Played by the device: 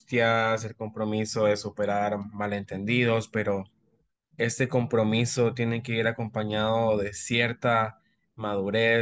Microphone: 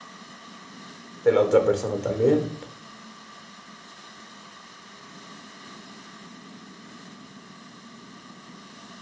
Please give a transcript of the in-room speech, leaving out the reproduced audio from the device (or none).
de la otra persona también,